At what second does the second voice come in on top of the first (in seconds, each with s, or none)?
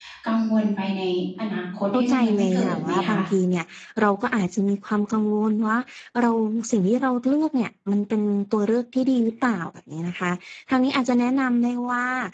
1.9 s